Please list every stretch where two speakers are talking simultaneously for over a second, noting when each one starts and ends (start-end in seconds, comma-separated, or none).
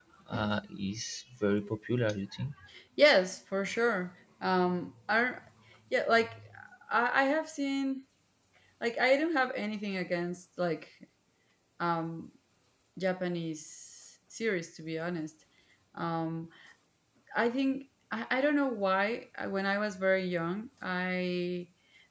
none